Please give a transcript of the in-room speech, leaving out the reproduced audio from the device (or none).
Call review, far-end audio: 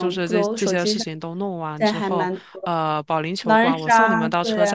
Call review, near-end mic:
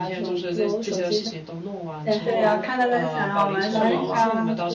对呀，看大家想要玩什么嘛。